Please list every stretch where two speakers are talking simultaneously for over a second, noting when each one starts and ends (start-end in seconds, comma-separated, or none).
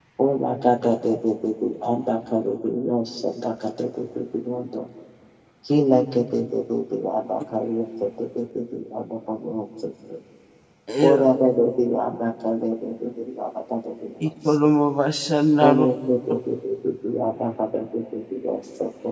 none